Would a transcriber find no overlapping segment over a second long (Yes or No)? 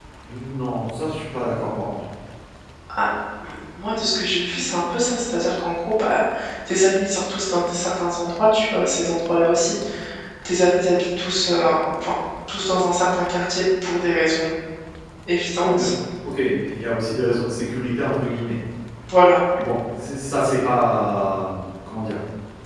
Yes